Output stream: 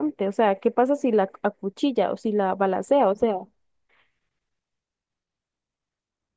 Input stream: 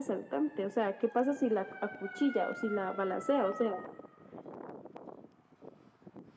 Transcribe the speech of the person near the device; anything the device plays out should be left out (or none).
none